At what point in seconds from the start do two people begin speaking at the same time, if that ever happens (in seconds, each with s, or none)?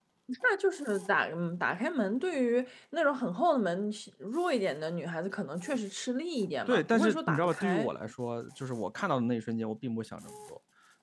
6.7 s